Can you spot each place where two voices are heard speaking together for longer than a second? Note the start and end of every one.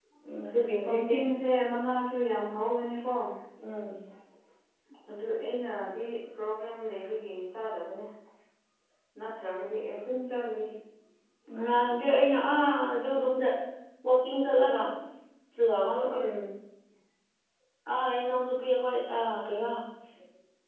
none

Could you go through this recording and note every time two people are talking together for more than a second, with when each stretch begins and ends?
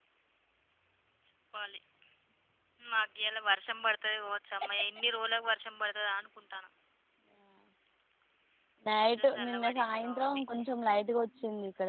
9.2-10.4

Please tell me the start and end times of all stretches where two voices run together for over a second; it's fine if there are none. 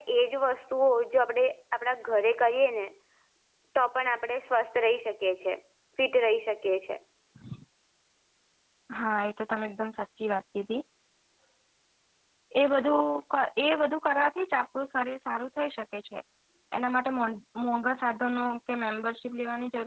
none

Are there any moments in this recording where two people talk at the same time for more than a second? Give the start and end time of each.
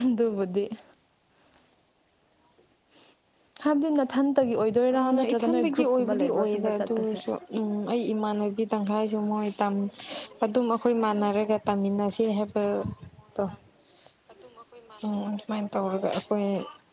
5.0-7.2

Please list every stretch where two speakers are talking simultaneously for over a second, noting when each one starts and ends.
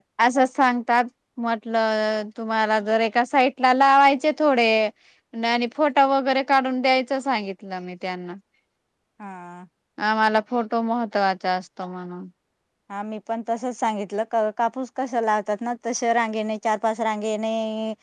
none

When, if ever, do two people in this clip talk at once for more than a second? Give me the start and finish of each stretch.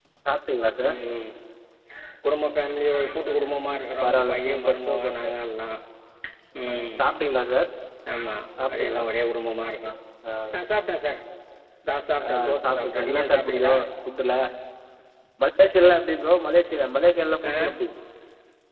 3.9-5.3, 12.3-13.7

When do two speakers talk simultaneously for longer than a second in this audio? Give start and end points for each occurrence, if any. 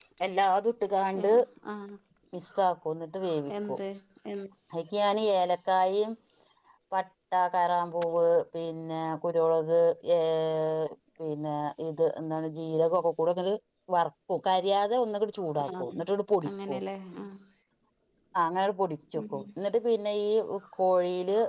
none

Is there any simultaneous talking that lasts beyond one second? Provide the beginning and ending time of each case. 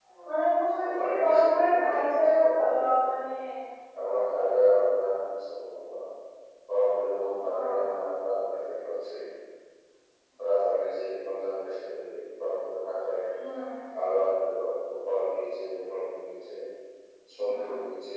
0.8-3.1

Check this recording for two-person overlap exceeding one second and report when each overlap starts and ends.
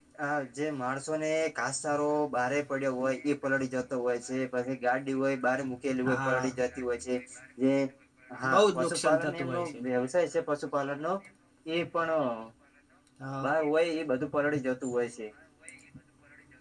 8.5-9.8

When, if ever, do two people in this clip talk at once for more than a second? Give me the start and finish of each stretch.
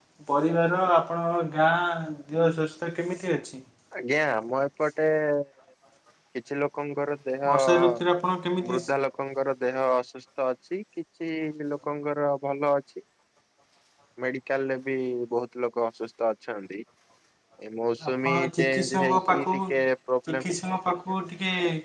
18.1-19.6

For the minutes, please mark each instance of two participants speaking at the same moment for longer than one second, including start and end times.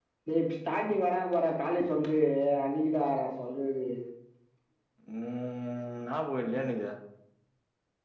none

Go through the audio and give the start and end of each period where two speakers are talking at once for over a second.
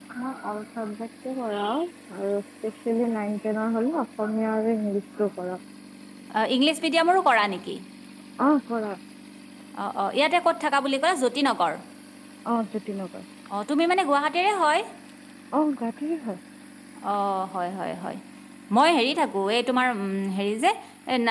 none

